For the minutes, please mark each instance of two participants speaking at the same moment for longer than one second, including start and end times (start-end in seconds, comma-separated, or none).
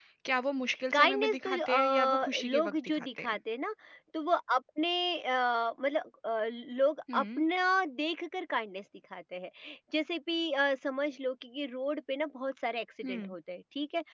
0.9-3.4